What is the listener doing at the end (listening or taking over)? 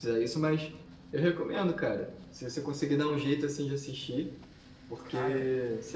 listening